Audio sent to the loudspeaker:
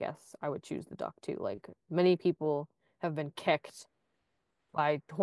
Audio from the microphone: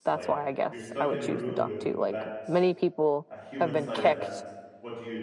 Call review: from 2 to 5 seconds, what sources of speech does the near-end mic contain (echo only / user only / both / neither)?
both